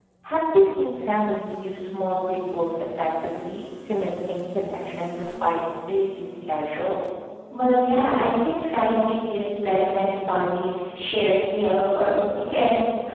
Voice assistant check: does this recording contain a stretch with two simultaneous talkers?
No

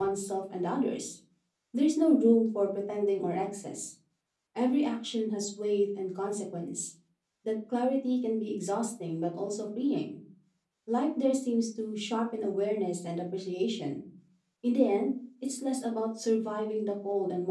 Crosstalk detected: No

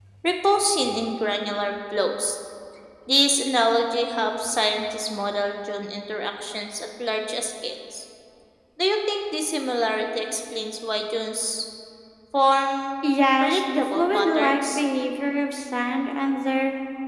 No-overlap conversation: No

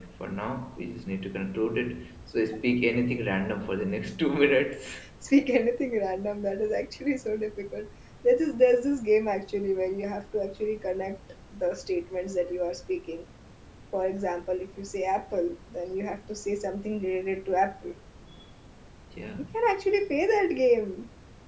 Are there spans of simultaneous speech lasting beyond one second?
No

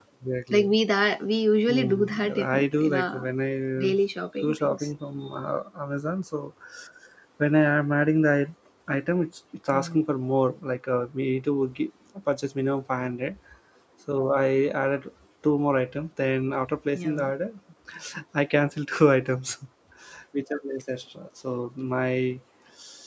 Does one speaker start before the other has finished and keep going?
Yes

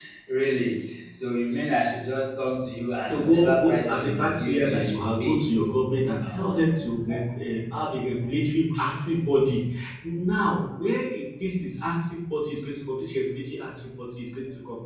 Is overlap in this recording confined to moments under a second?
No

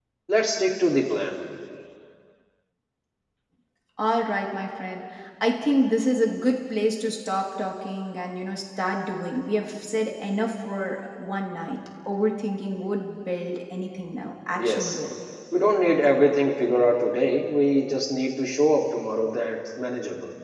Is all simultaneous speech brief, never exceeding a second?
Yes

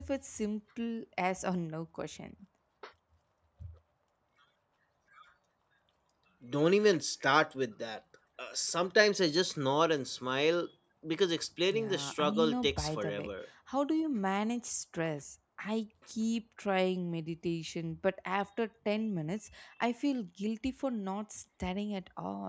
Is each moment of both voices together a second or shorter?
No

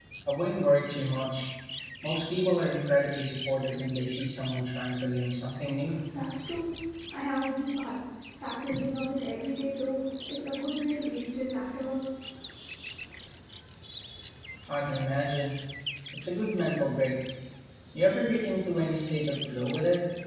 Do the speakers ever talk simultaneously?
No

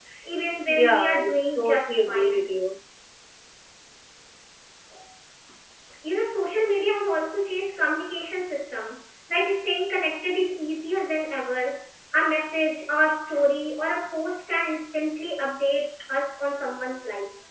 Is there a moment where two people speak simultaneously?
Yes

